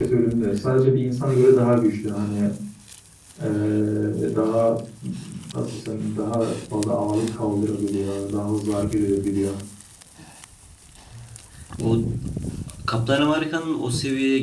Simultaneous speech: No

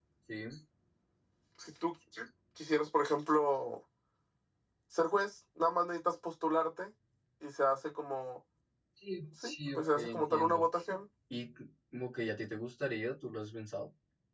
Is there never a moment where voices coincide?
No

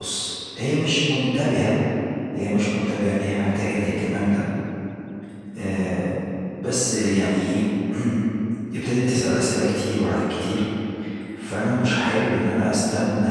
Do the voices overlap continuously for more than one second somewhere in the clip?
No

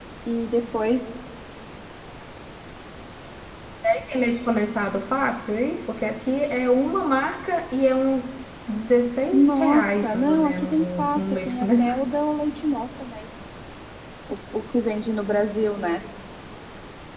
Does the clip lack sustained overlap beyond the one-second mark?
No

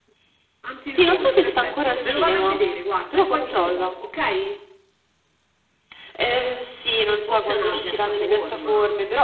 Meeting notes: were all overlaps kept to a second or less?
No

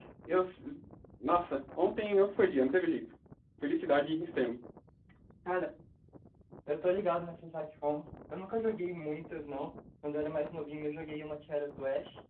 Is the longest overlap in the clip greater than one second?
No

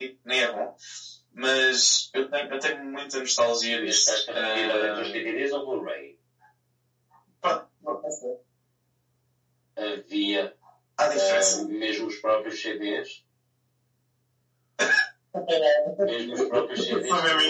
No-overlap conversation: No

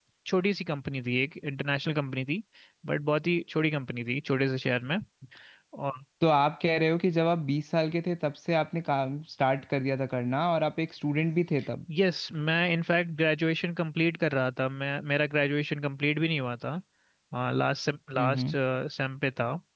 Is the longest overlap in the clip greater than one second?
No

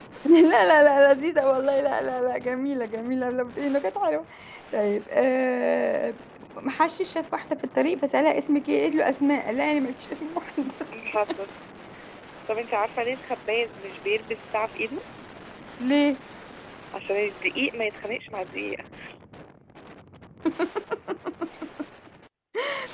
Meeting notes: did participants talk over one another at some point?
No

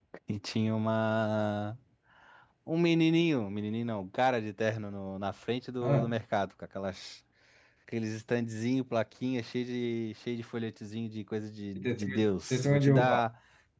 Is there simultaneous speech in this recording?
Yes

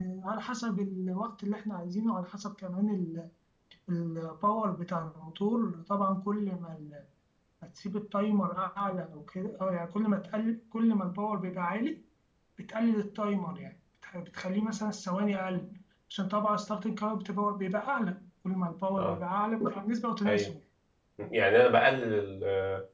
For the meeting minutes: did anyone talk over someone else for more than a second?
No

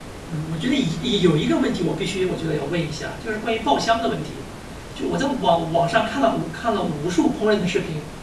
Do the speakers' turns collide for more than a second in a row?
No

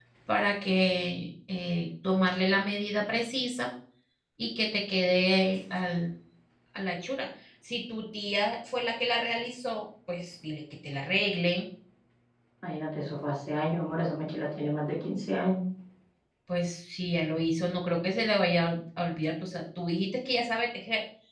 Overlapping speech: No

